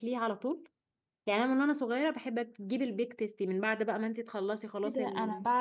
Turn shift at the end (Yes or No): Yes